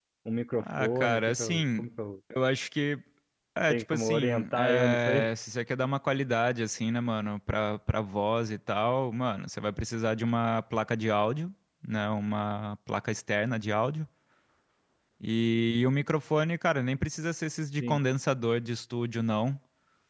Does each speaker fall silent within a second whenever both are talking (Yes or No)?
No